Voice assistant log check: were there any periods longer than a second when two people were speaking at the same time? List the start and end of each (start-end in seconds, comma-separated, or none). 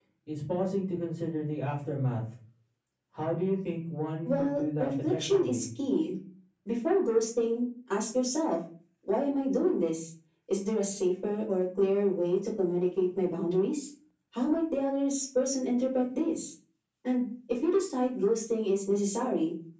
4.2-5.6